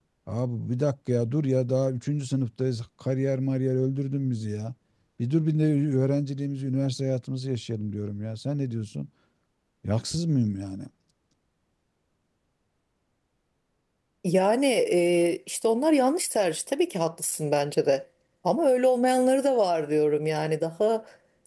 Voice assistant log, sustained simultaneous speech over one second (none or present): none